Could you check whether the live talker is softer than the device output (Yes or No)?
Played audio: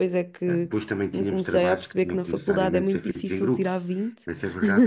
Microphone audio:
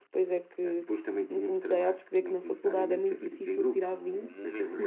Yes